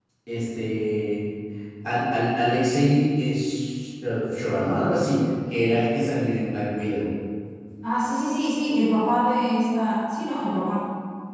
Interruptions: none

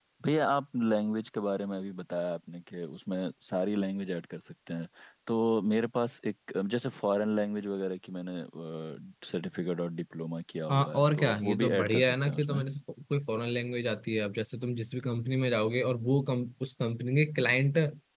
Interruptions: present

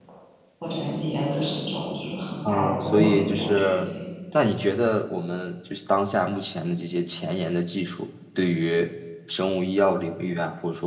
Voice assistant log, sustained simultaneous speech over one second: present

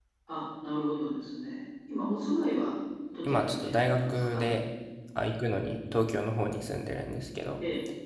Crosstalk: present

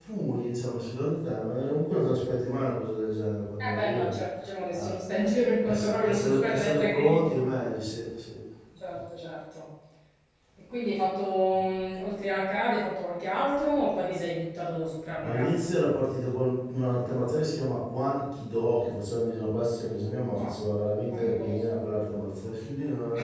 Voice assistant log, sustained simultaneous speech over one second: present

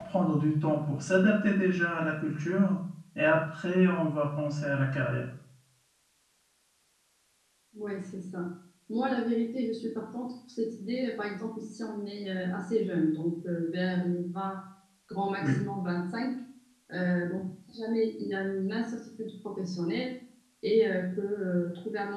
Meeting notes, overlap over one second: none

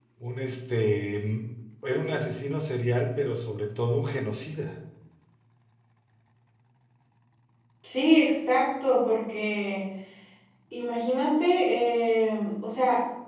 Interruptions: none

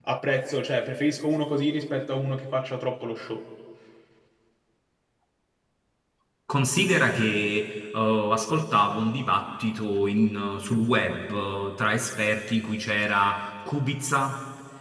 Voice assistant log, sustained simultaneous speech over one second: none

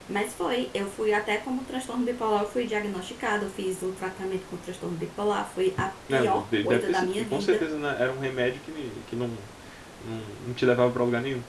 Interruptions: present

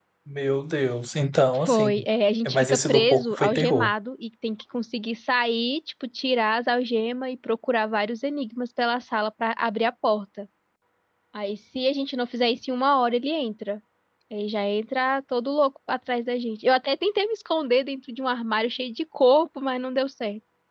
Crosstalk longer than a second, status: present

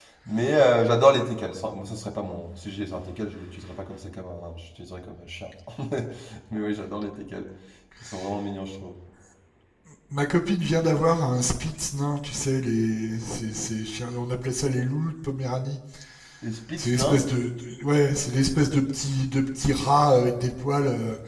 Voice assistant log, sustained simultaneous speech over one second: none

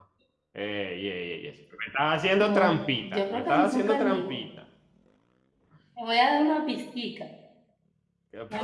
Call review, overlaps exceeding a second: present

